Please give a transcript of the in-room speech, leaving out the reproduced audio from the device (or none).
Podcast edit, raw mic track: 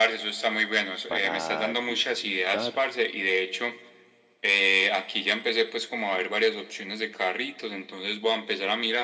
para disfrutar